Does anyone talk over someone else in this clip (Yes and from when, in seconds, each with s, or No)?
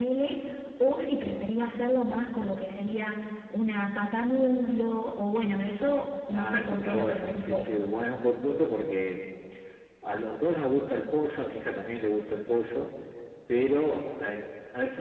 Yes, from 6.3 s